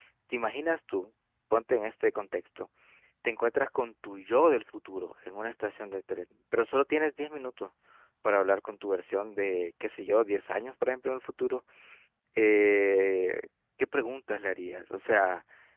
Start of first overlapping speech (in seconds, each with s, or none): none